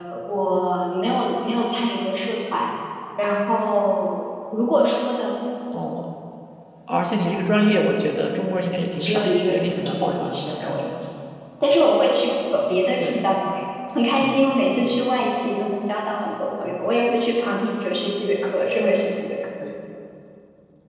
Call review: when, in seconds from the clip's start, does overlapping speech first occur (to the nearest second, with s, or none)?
9 s